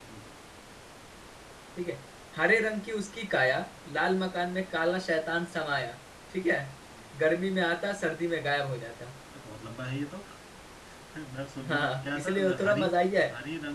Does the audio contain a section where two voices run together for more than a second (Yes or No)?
Yes